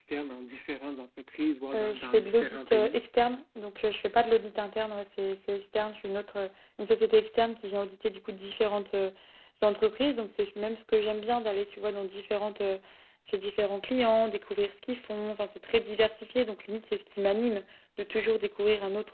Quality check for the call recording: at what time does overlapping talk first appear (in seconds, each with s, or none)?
1.7 s